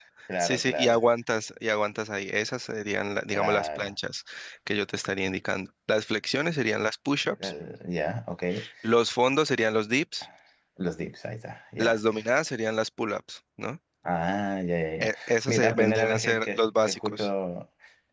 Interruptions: present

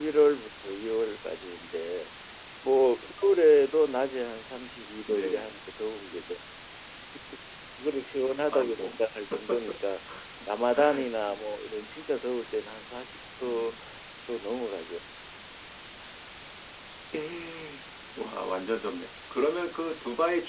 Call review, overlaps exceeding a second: none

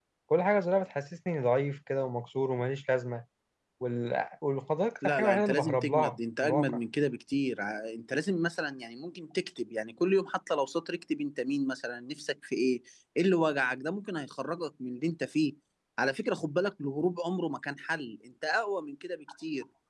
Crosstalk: present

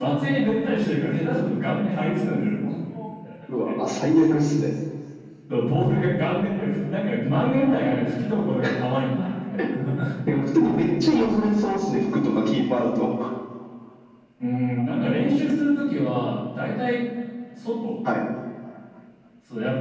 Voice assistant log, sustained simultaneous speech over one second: none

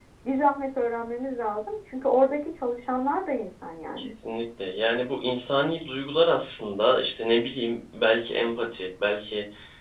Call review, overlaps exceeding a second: none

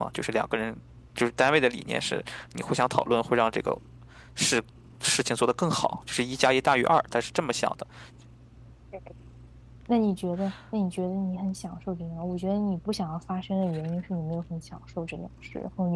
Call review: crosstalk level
none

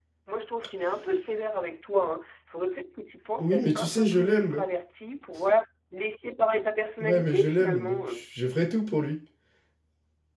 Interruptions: present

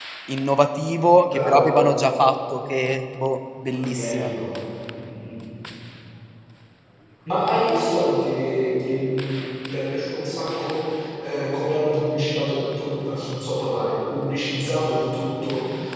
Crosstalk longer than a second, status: none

